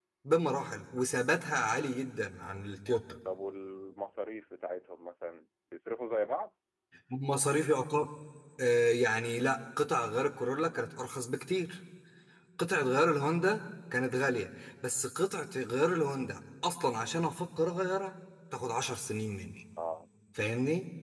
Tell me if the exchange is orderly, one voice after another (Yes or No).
Yes